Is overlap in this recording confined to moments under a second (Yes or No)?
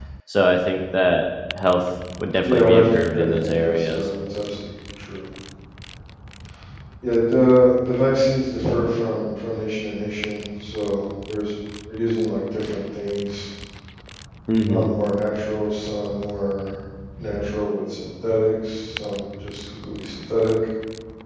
No